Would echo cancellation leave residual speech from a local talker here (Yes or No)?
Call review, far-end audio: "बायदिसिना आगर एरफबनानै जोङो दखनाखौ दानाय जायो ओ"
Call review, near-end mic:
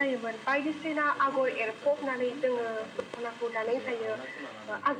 Yes